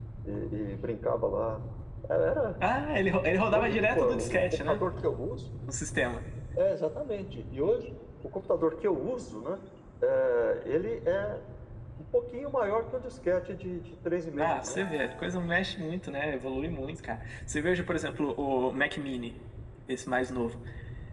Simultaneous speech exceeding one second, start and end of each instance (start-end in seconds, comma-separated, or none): 3.5-4.8